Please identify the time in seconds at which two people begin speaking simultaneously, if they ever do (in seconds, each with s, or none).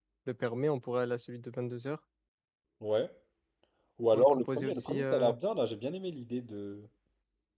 4.1 s